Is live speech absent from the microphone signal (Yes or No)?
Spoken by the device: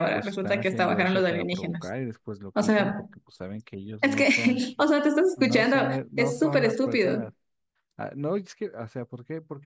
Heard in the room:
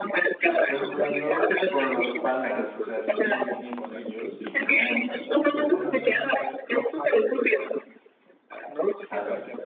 No